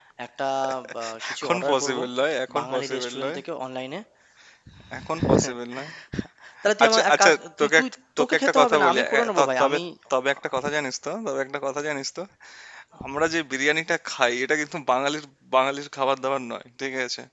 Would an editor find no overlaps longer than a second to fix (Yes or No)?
No